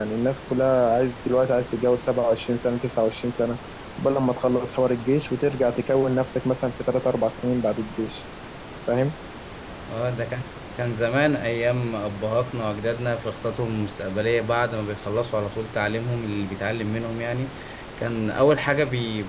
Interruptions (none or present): none